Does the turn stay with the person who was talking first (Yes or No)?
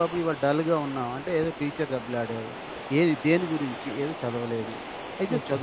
Yes